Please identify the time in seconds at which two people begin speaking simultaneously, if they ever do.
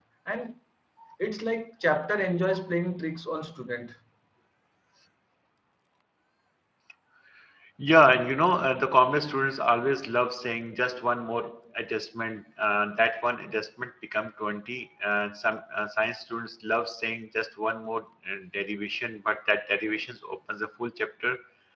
none

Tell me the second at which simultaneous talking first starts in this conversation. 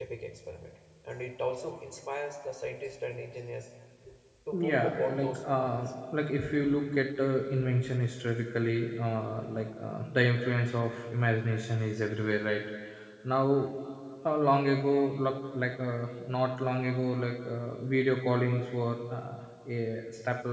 4.5 s

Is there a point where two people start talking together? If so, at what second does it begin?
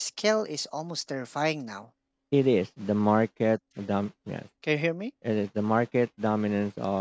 none

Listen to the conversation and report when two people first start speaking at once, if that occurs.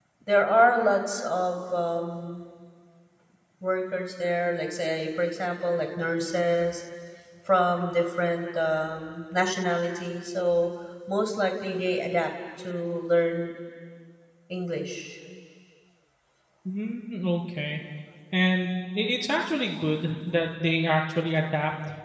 none

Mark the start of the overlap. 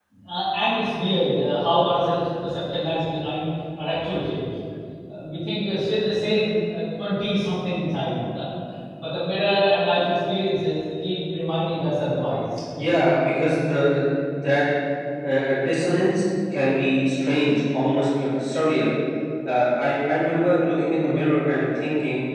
none

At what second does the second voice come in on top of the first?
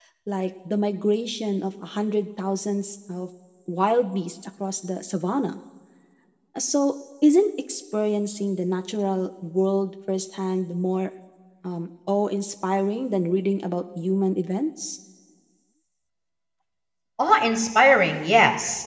none

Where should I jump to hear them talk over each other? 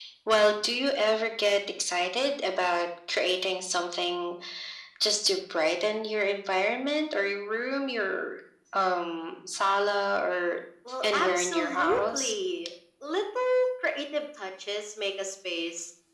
11.0 s

